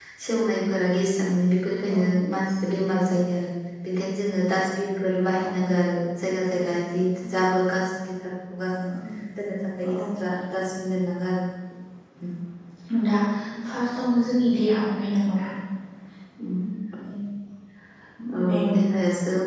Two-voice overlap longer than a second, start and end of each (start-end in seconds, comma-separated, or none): none